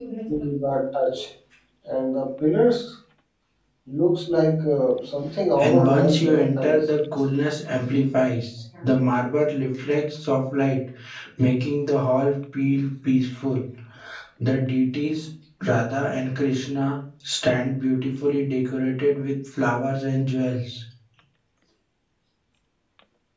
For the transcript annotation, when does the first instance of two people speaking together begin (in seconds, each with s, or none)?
5.6 s